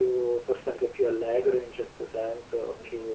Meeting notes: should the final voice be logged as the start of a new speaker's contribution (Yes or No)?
Yes